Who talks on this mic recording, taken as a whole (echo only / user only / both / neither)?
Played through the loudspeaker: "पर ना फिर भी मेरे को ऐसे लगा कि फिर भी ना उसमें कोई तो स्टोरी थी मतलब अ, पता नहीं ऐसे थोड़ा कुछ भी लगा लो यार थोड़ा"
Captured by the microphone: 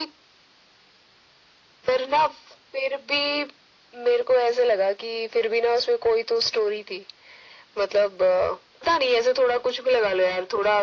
echo only